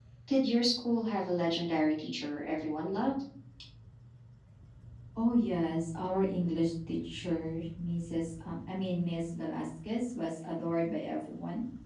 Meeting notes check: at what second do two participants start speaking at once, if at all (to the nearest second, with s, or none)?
none